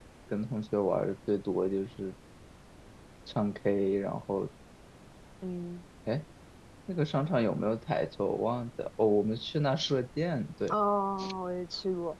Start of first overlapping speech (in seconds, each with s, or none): none